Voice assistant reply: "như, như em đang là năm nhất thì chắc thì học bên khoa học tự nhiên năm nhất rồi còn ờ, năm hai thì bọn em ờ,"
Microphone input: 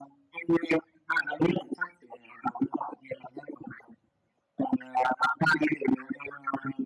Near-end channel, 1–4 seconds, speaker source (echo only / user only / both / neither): echo only